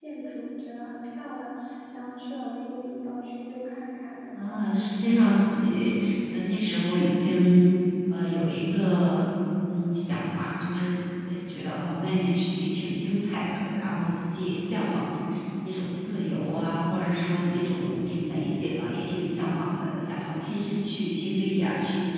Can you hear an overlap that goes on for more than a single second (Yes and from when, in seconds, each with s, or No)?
Yes, from 4.3 s